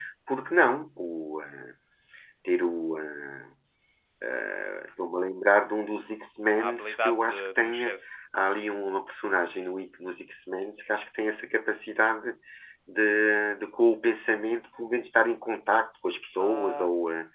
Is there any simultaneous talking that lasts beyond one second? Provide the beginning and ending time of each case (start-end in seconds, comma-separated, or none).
6.6-7.9